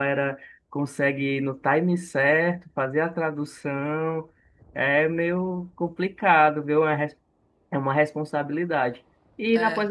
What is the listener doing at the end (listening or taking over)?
listening